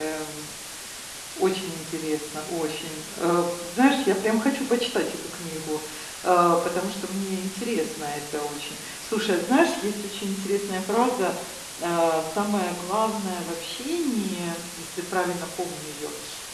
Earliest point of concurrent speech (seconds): none

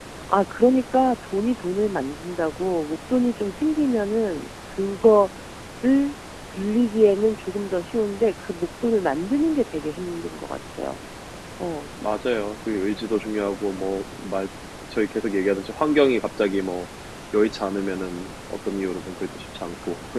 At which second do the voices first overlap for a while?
none

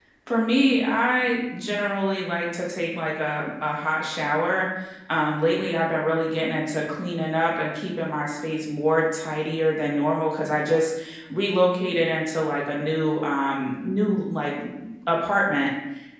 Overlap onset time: none

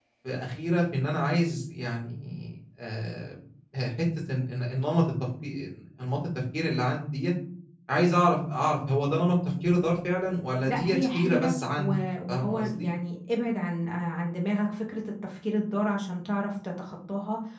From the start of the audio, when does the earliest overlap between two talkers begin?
11 s

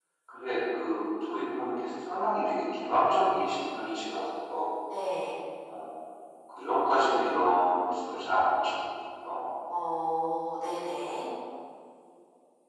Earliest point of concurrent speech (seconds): none

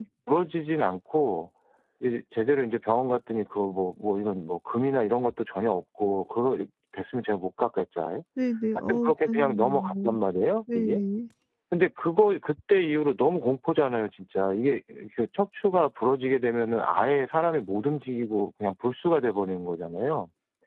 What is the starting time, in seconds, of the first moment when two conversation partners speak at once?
9 s

